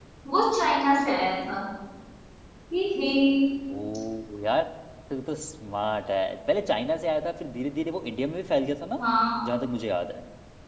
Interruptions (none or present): none